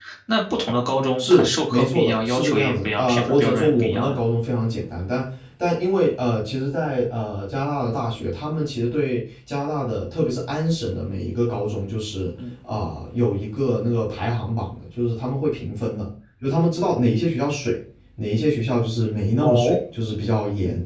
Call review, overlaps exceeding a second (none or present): present